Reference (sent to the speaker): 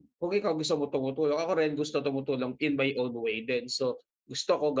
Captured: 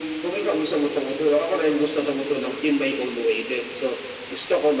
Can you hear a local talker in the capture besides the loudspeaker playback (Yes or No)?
No